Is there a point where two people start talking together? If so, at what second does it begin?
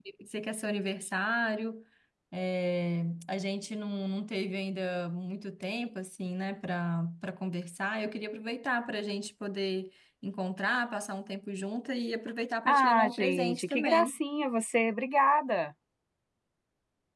13 s

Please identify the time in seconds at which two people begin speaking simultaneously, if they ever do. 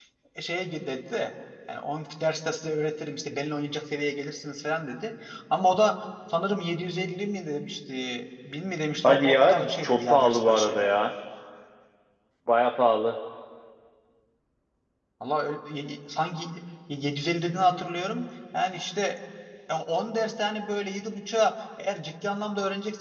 9 s

